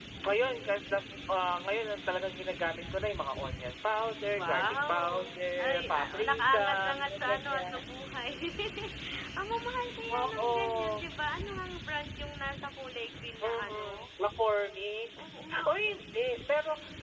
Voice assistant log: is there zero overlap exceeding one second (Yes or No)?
No